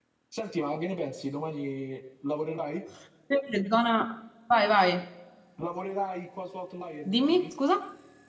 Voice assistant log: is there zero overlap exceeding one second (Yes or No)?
Yes